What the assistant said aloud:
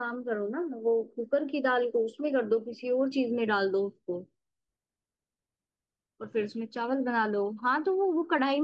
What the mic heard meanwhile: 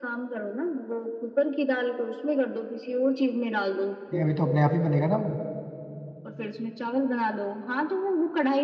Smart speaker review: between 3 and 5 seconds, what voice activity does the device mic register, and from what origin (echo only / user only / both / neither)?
both